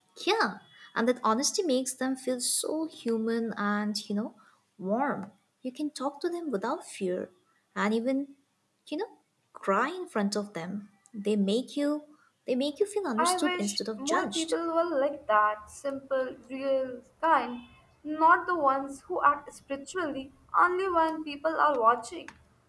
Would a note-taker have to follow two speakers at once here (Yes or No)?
Yes